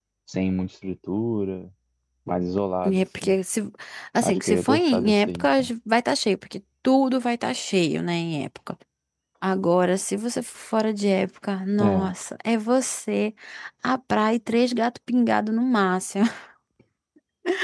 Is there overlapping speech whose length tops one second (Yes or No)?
Yes